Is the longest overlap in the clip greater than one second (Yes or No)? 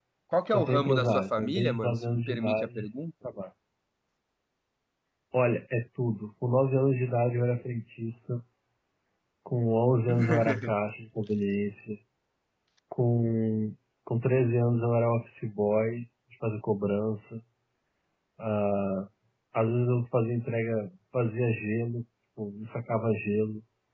Yes